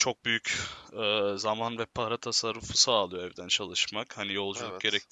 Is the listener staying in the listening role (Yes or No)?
Yes